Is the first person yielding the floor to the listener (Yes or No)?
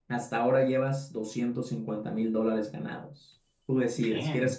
No